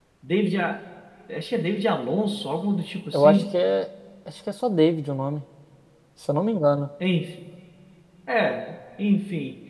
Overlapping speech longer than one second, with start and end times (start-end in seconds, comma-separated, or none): none